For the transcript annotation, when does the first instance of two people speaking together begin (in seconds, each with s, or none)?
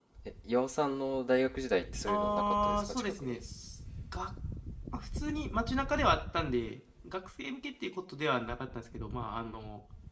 2.1 s